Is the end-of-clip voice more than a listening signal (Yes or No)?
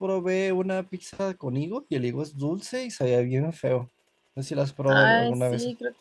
Yes